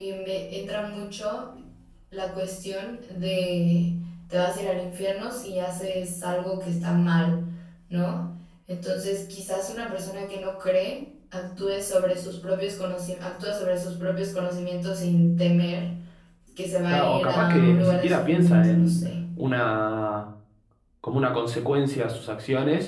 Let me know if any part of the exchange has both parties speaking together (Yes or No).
Yes